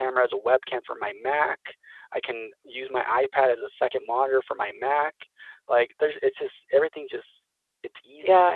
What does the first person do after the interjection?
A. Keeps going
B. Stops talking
B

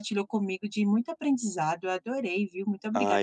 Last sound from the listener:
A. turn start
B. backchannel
A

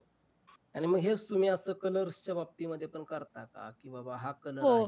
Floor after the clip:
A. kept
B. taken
B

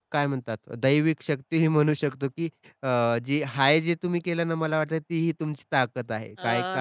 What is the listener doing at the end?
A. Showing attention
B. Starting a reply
A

